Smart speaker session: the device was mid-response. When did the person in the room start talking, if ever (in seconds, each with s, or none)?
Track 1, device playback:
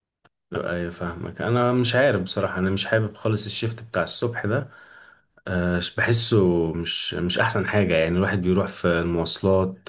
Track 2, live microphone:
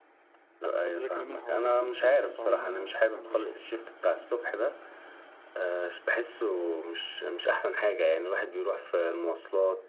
0.8 s